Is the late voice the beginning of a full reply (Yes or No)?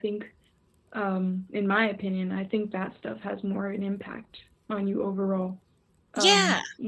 No